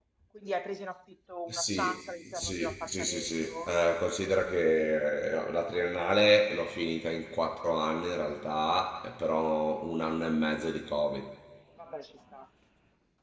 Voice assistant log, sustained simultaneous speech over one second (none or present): present